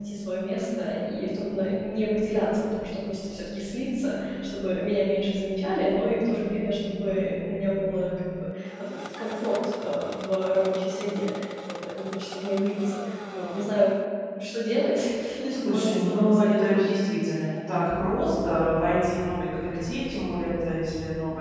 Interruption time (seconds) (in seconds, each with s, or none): 15.6 s